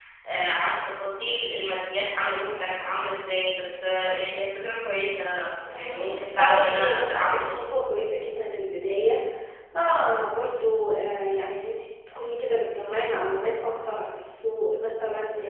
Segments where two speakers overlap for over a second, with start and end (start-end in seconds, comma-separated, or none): 5.7-7.6